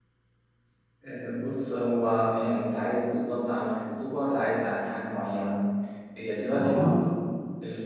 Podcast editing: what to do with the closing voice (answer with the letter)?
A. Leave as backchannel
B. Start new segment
A